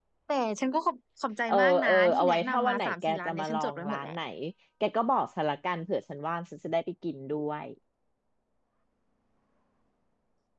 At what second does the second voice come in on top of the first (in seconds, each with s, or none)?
1.5 s